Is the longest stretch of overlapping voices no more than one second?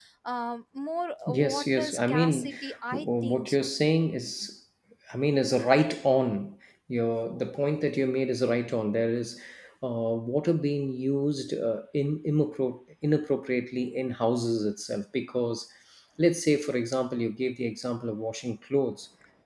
No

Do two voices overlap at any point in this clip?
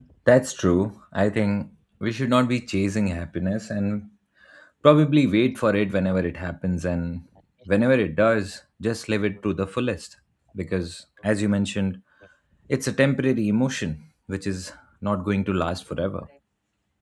No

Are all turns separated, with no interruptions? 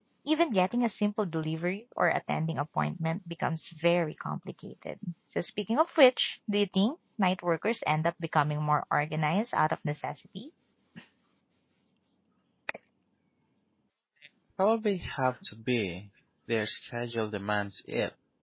Yes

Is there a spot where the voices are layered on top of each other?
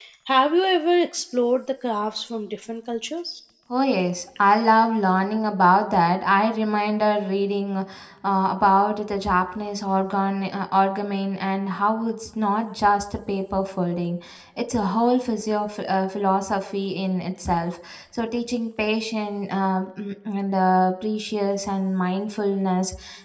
No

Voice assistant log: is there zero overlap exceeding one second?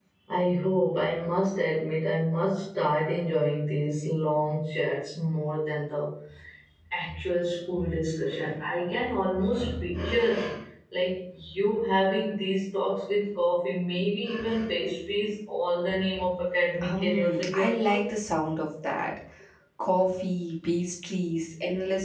No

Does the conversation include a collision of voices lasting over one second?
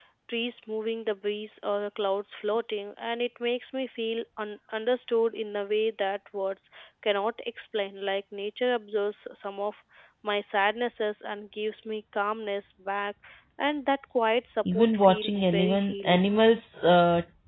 Yes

